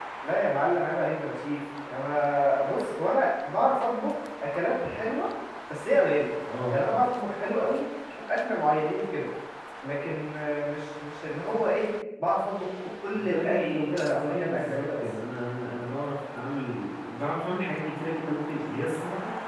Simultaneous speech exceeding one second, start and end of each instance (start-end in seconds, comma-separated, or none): 13.1-15.0